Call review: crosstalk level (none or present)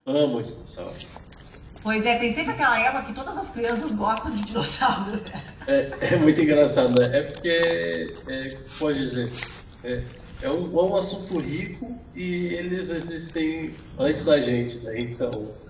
none